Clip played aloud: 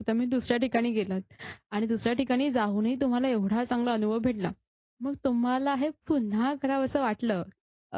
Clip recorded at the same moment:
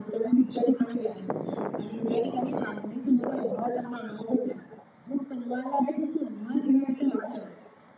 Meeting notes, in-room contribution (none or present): none